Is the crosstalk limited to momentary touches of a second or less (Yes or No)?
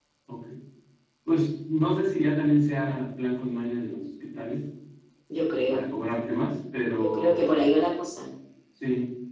Yes